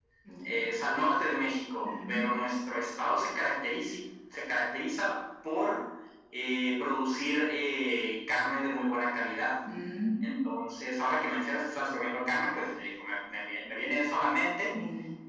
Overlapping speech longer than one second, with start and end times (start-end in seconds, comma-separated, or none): none